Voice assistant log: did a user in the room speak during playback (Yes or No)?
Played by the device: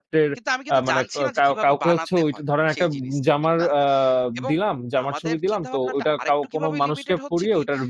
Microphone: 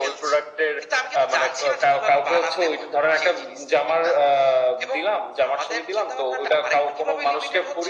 No